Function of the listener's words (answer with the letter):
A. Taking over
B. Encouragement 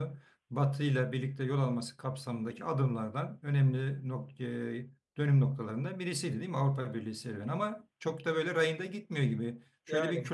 B